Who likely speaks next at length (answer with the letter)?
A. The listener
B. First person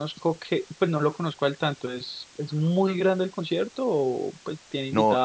A